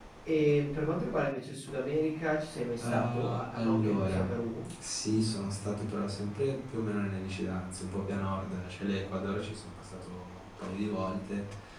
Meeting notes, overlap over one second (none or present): present